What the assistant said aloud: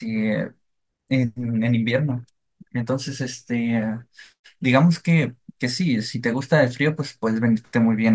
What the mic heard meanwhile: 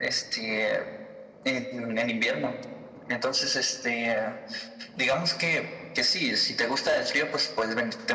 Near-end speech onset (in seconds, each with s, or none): none